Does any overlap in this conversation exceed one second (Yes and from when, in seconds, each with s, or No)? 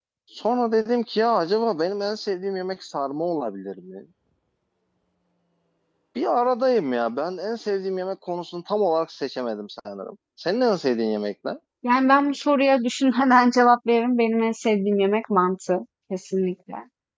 No